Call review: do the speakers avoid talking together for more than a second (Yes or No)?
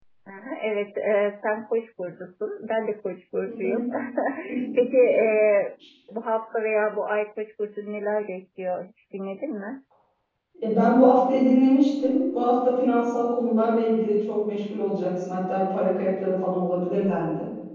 Yes